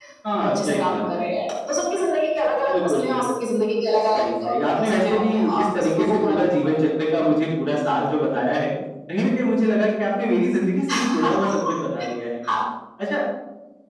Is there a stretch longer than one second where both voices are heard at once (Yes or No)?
Yes